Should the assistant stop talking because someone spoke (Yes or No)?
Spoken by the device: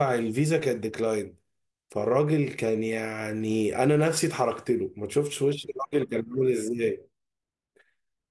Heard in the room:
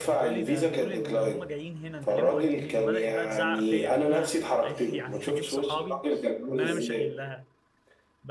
Yes